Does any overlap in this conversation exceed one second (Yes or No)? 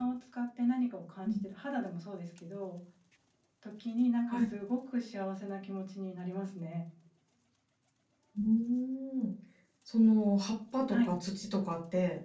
No